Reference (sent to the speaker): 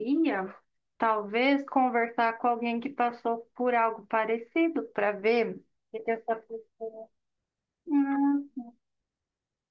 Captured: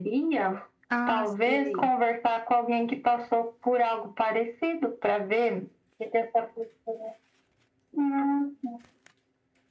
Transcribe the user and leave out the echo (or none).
Ah, sei.